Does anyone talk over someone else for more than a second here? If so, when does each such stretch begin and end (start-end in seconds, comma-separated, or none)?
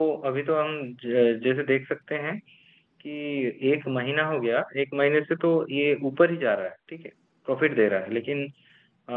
none